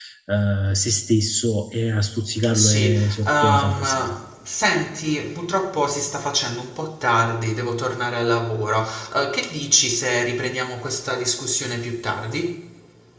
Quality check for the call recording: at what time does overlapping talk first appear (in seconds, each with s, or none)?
2.4 s